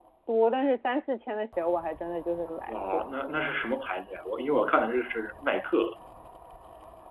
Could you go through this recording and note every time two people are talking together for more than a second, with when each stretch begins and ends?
none

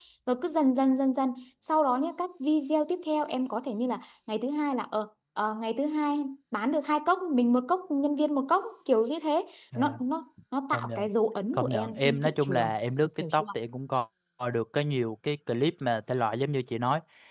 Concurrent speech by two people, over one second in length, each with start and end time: 11.5-12.8

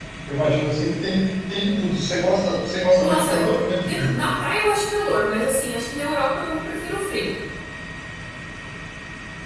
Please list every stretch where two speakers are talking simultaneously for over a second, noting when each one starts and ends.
none

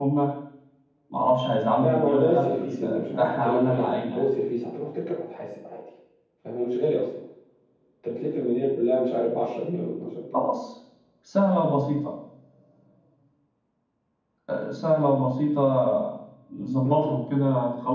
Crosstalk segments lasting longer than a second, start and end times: 1.8-4.2

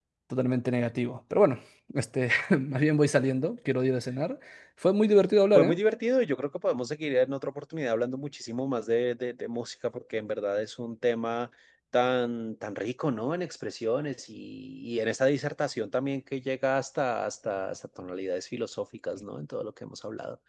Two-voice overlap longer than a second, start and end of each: none

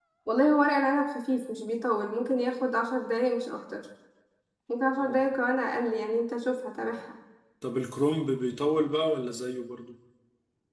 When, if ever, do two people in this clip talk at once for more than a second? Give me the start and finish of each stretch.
none

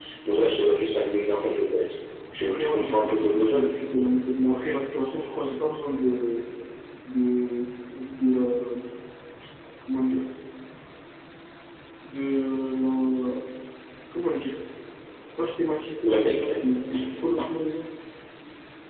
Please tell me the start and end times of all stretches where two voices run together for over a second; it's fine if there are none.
2.4-3.7

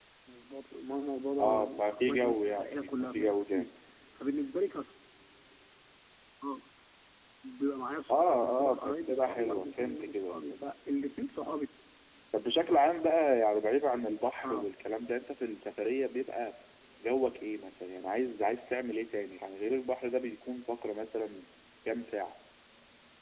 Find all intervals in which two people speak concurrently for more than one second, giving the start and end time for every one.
1.4-3.6, 8.1-10.7

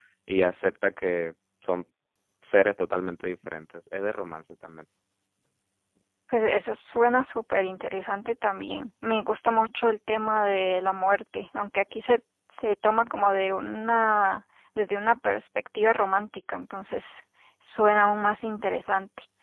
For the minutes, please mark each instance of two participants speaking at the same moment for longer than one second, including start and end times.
none

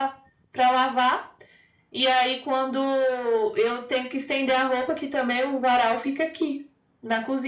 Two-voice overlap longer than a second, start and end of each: none

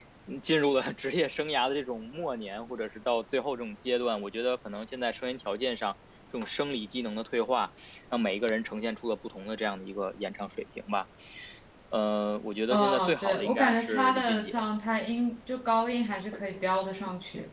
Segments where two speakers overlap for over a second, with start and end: 12.7-14.6

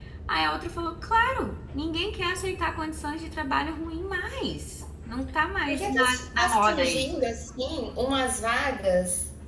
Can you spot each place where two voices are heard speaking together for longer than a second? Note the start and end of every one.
5.7-7.0

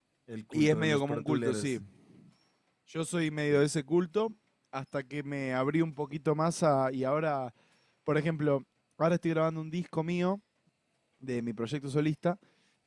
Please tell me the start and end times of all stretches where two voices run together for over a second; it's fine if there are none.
0.5-1.8

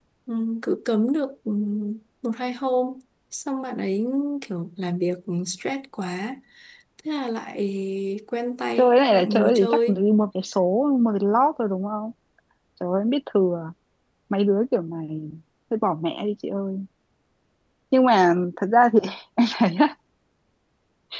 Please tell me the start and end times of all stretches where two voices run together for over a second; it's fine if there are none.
8.8-10.0

